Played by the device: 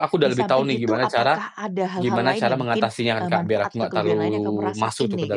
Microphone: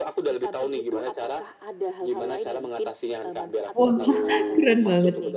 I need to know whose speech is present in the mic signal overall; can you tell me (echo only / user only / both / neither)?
both